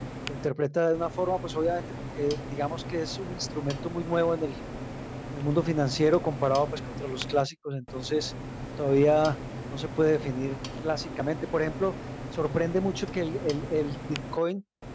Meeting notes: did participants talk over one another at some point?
No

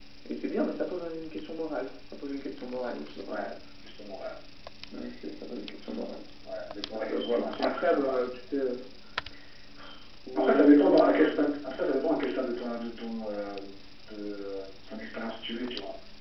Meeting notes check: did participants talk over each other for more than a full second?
Yes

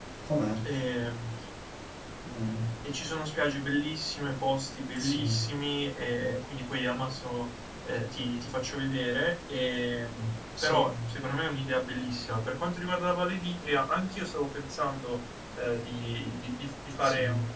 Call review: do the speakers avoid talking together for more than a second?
Yes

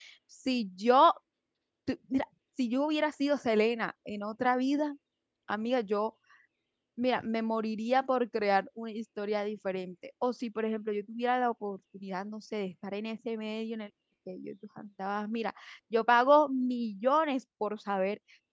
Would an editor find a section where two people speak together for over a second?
No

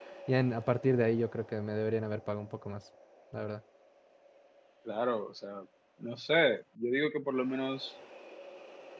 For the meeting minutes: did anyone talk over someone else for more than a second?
No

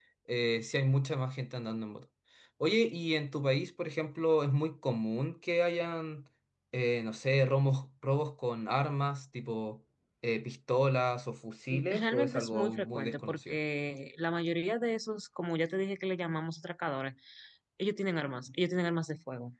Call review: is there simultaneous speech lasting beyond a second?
Yes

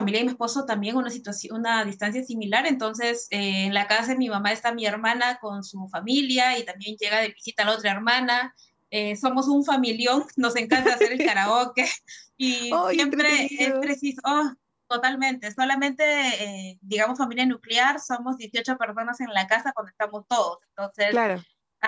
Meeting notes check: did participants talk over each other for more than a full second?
Yes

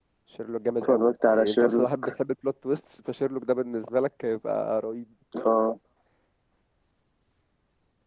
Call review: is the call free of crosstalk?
No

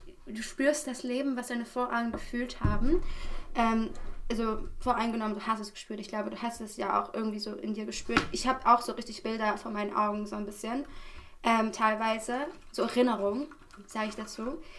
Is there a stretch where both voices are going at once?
No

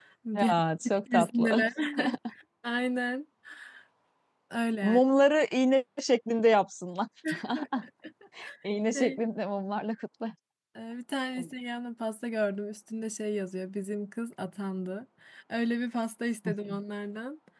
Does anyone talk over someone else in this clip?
Yes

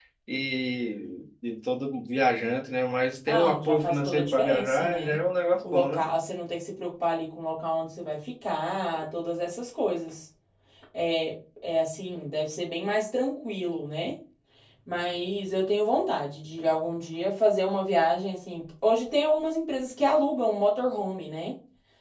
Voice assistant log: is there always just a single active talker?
No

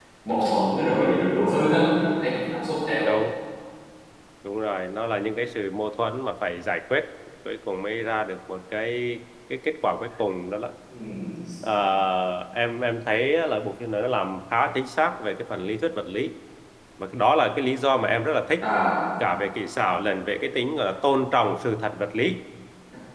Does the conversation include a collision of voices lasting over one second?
No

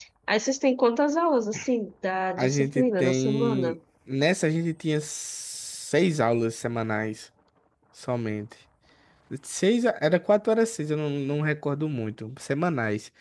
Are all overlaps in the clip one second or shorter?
No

